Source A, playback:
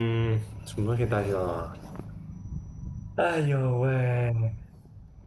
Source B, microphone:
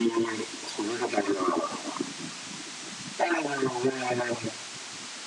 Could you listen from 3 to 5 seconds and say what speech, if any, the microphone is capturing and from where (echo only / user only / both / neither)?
echo only